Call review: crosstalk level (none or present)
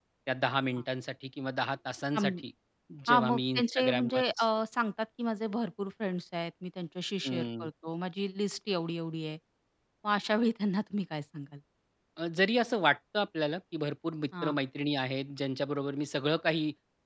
present